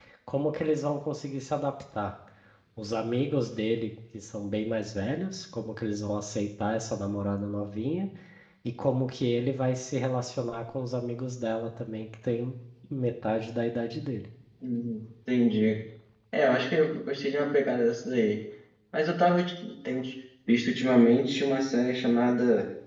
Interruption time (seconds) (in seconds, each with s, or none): none